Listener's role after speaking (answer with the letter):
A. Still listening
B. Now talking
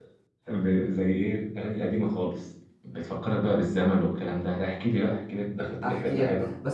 B